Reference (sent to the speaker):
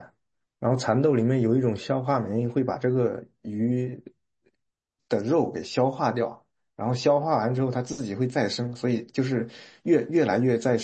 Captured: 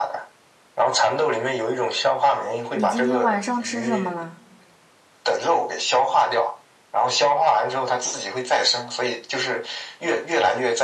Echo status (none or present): present